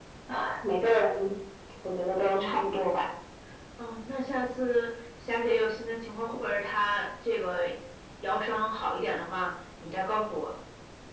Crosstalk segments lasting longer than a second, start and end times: none

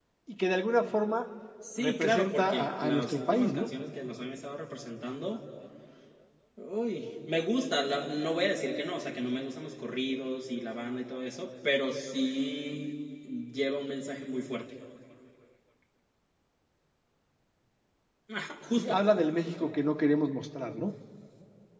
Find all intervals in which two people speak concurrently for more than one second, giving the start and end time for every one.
1.8-3.7

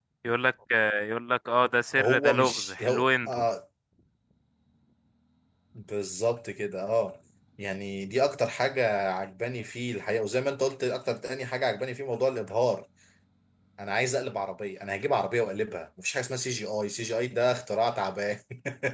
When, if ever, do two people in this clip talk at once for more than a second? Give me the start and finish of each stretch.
2.0-3.4

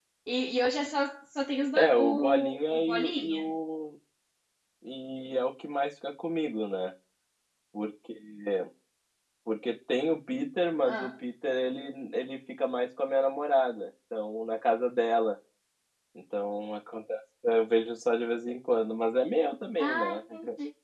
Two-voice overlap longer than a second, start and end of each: 1.8-3.4

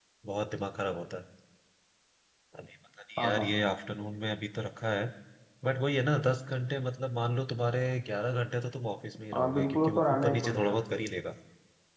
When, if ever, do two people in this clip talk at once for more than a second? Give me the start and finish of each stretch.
9.3-10.7

